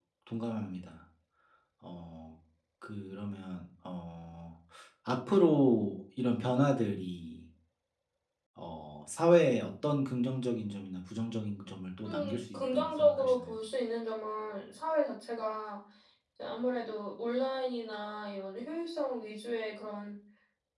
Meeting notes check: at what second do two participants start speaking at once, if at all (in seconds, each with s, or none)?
12.0 s